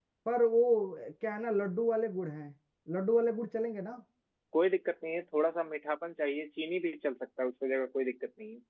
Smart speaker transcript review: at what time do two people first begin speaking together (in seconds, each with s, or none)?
none